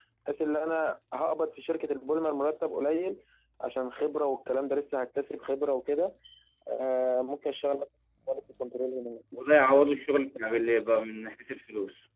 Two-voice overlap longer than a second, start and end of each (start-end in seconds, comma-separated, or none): none